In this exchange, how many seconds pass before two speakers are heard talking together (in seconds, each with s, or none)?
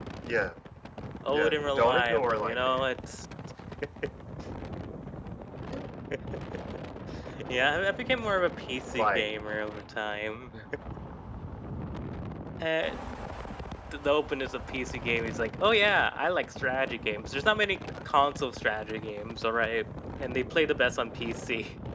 1.3 s